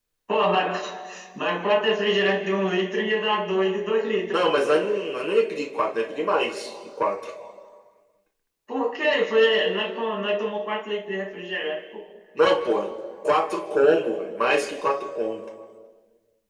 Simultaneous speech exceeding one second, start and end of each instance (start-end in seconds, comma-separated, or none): none